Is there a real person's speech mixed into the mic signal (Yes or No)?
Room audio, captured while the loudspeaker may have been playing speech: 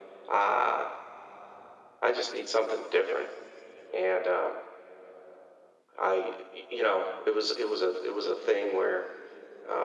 No